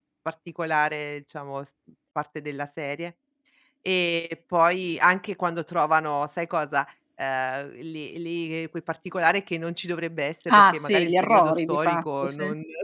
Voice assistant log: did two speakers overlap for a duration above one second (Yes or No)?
Yes